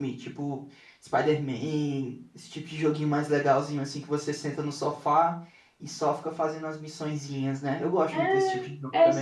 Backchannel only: No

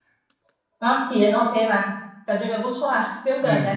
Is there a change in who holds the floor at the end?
Yes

